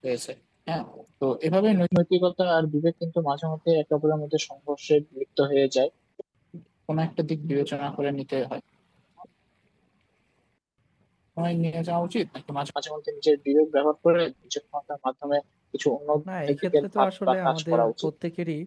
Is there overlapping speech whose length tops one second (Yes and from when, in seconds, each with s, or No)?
Yes, from 16.6 s